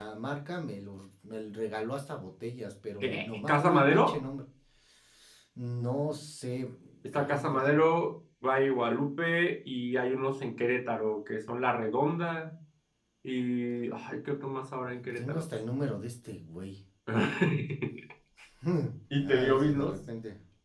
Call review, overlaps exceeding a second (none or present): present